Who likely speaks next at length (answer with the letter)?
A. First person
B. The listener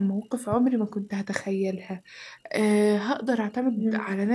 A